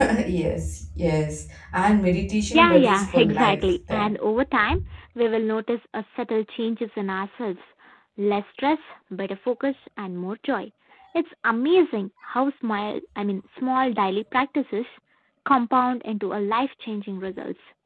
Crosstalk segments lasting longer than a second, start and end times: 2.5-4.1

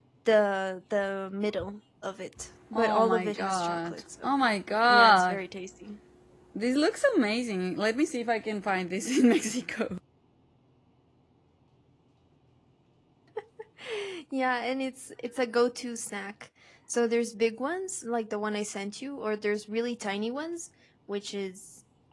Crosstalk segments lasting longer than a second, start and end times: 2.7-4.3

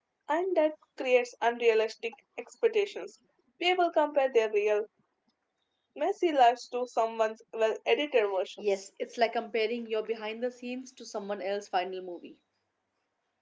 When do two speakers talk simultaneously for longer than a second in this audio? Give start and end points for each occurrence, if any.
none

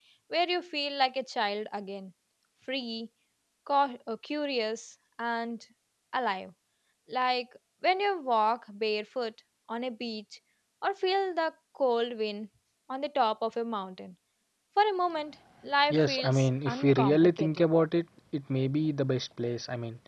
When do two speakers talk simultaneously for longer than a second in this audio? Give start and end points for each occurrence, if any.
15.9-17.5

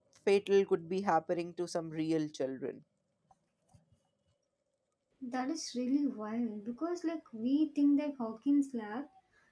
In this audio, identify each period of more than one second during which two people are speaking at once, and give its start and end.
none

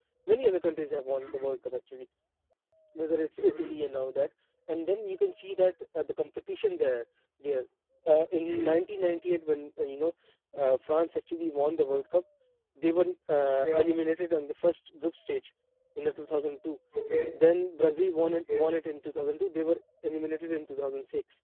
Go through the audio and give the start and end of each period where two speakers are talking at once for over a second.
none

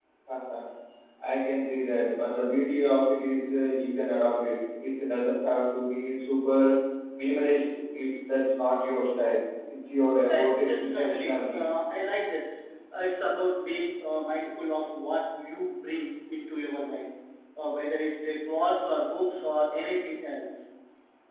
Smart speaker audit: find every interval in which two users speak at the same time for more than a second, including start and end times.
10.3-11.6

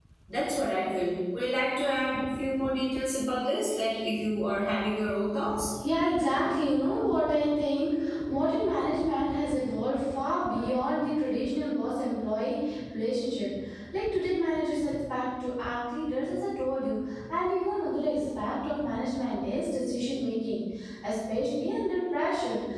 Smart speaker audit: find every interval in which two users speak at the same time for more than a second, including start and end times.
none

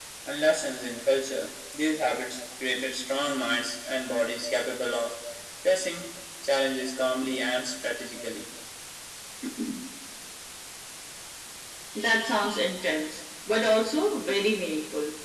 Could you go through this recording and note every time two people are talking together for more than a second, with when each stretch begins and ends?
none

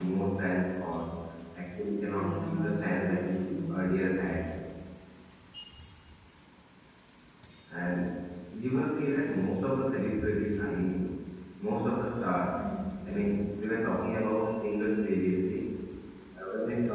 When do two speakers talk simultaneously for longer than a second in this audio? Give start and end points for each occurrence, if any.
2.1-3.9

